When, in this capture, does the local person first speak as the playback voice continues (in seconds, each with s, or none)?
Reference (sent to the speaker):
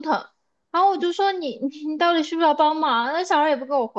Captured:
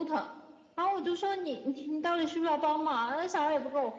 none